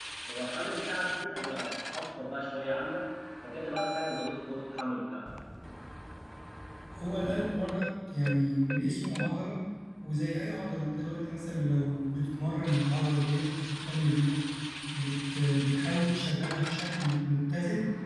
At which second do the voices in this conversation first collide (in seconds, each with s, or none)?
none